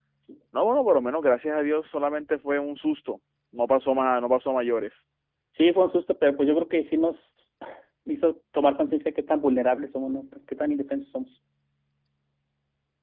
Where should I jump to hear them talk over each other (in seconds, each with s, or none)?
none